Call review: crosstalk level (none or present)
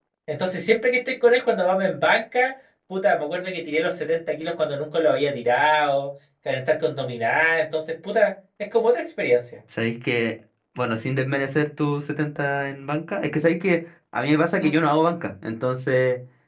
none